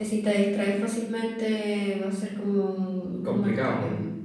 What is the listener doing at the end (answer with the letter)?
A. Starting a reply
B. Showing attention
A